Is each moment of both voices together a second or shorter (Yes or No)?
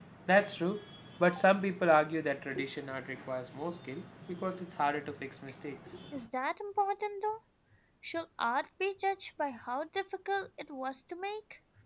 Yes